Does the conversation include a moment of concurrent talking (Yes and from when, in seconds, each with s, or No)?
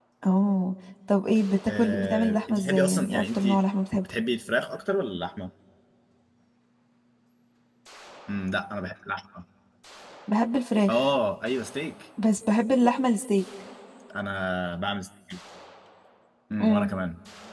Yes, from 1.8 s